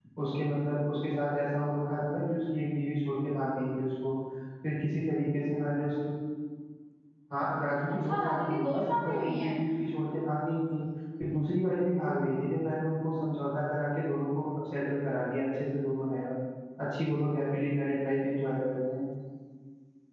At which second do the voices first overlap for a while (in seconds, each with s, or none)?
8.1 s